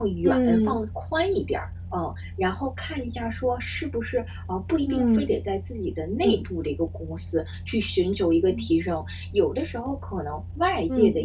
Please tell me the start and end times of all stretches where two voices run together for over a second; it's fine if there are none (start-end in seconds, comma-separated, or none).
none